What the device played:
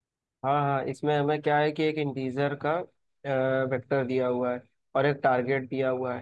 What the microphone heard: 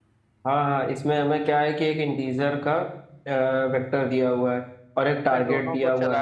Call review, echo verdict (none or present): present